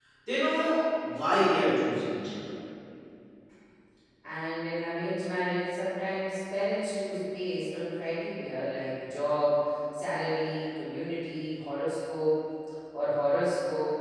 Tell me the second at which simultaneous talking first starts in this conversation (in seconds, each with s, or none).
none